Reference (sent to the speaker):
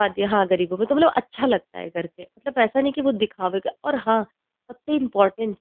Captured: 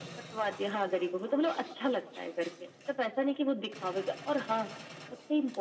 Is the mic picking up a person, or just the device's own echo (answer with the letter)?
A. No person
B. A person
A